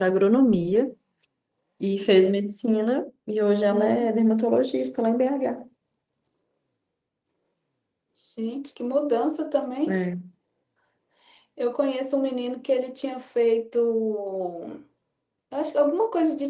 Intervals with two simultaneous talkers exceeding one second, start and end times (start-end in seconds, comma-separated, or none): none